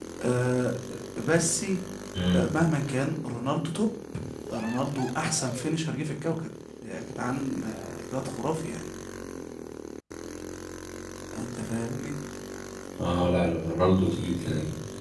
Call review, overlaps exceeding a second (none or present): none